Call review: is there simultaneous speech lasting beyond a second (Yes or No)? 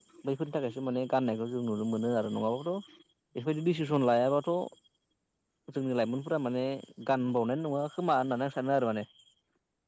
No